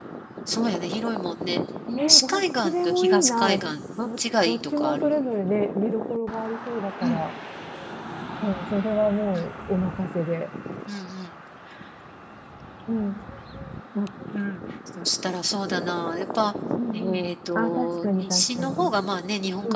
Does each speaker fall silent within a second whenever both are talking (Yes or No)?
No